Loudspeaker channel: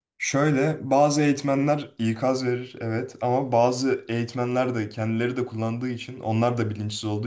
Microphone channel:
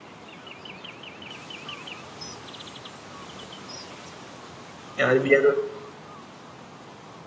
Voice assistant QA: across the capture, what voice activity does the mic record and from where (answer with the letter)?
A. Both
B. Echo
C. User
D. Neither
C